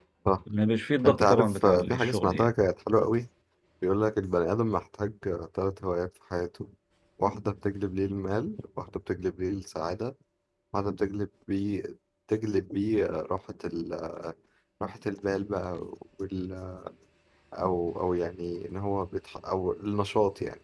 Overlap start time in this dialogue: 1.1 s

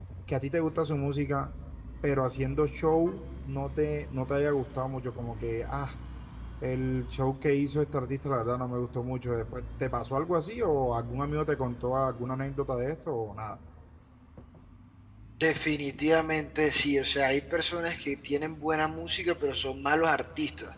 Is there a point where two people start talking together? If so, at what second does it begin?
none

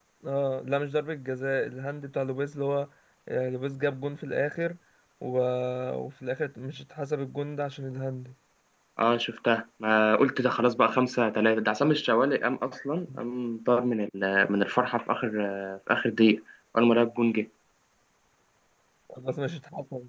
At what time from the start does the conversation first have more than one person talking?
none

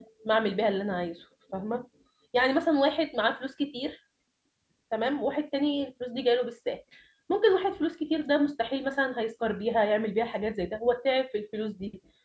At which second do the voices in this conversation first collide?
none

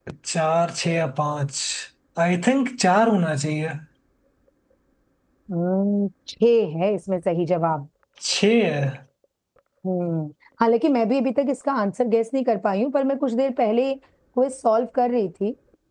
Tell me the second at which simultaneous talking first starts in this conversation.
none

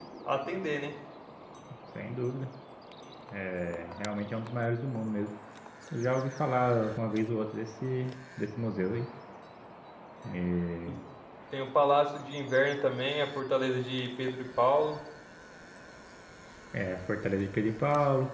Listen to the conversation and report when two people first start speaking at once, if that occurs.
none

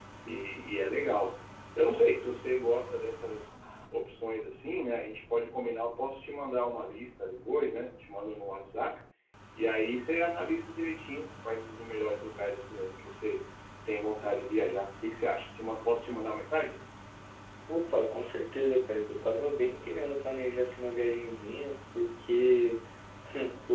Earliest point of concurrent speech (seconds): none

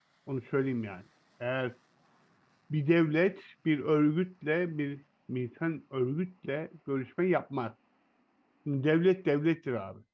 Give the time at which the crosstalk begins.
none

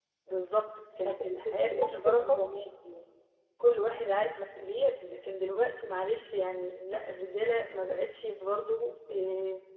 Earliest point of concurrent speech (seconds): 1.0 s

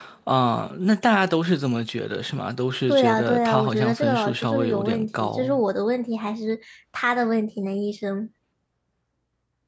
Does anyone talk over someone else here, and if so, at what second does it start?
2.9 s

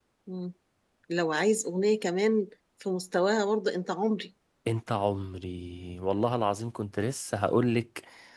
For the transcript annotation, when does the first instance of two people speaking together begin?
none

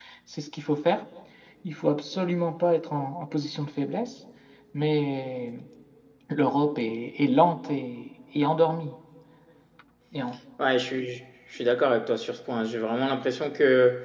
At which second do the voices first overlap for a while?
none

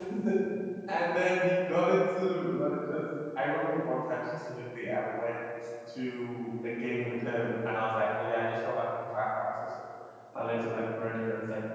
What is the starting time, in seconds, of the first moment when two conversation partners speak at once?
none

